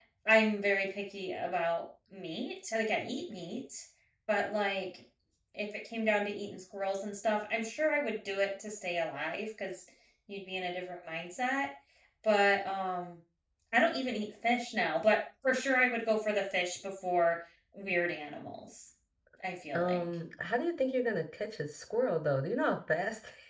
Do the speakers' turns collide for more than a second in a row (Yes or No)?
No